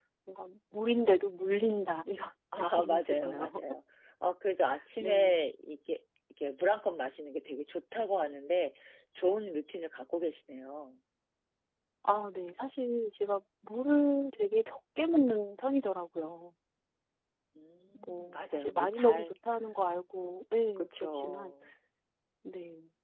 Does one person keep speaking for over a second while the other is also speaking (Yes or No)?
Yes